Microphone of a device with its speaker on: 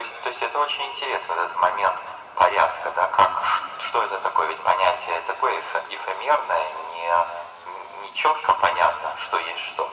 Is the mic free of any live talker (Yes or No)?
Yes